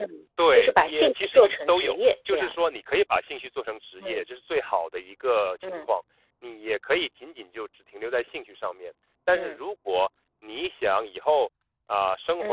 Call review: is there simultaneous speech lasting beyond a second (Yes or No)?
Yes